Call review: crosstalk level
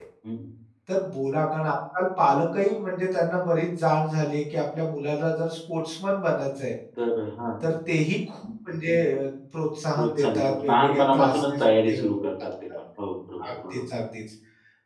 present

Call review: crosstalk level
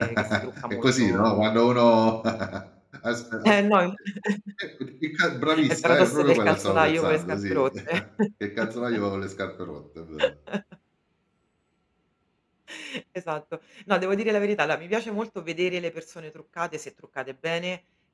present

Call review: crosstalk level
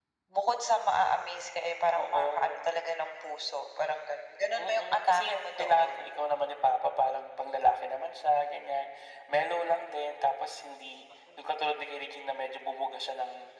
present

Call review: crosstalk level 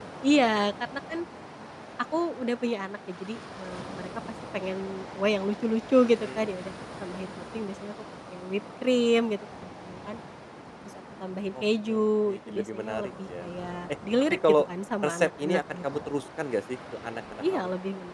present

